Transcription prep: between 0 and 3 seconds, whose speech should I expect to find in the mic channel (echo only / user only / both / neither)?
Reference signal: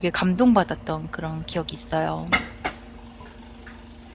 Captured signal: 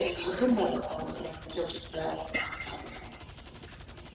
echo only